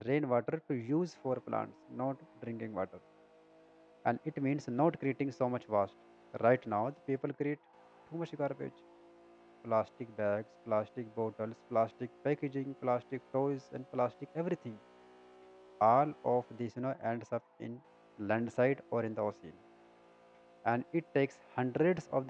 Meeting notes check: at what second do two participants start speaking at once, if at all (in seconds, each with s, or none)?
none